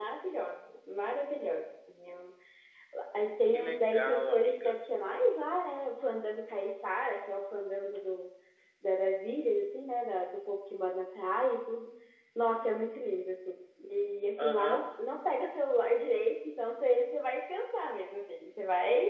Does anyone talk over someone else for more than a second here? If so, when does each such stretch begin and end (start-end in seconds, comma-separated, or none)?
3.4-4.7